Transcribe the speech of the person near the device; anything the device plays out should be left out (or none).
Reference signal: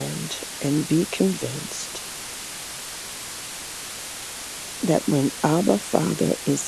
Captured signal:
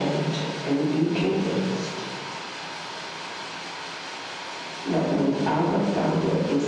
none